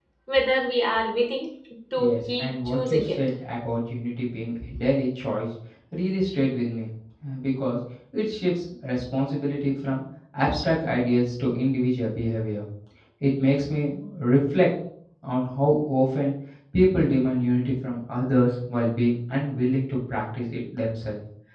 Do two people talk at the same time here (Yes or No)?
Yes